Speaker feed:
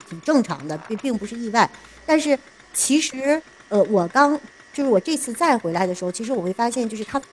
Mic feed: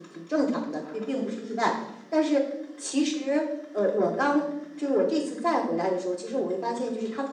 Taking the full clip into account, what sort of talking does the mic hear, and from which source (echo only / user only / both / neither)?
echo only